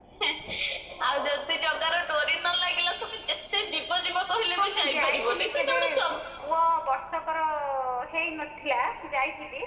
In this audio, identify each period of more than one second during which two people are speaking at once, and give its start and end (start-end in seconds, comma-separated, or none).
4.6-5.8